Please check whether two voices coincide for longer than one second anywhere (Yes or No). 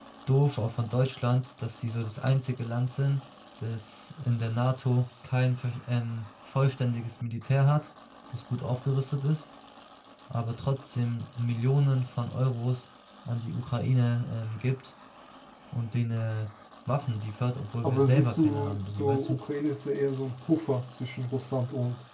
Yes